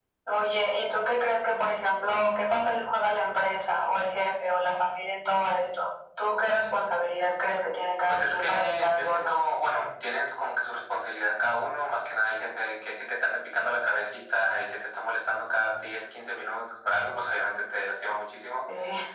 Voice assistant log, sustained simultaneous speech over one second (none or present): present